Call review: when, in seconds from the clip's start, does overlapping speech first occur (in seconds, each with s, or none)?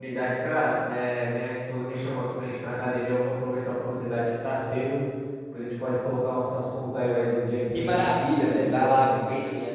7.7 s